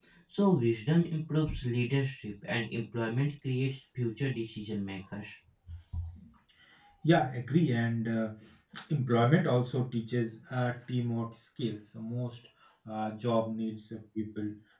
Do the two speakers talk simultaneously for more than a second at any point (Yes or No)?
No